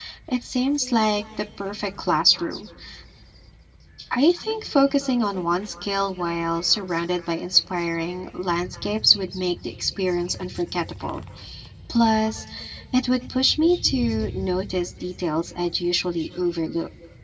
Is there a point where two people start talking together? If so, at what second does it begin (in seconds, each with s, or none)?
none